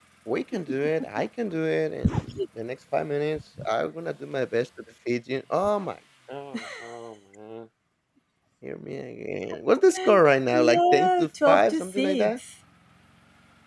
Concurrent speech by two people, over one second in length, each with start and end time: 10.5-12.3

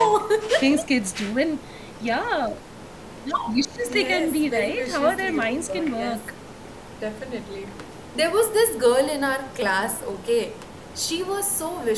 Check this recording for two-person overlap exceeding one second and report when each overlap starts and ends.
3.8-6.2

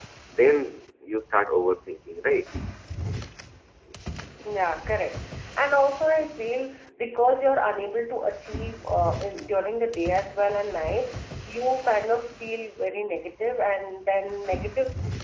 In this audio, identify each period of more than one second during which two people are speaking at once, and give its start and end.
none

